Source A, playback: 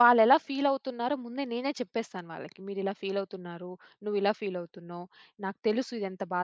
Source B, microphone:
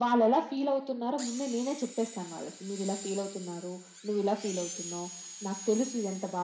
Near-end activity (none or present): none